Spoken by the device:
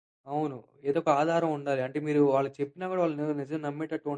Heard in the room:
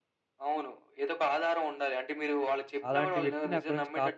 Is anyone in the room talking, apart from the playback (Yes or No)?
Yes